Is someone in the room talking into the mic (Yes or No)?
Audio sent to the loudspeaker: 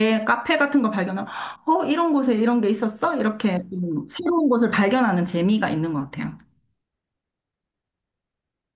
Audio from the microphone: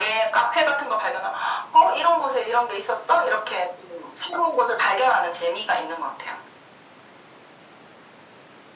No